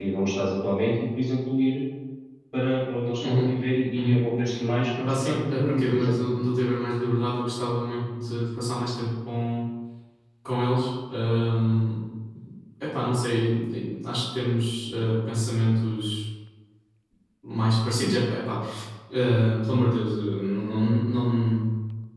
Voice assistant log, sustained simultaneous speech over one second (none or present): present